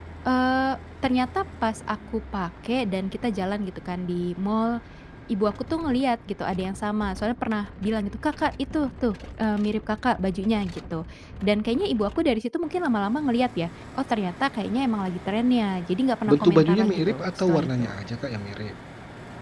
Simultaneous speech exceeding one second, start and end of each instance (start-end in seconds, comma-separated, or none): 16.3-17.9